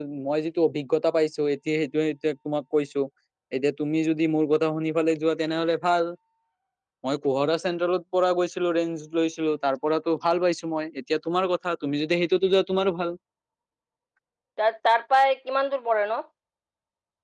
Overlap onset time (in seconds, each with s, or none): none